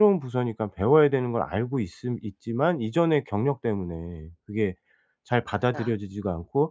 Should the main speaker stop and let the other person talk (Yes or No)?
No